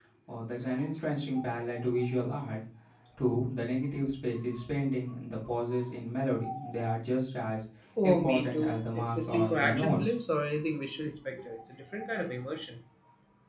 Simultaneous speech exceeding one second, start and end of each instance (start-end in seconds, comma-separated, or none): 8.0-10.0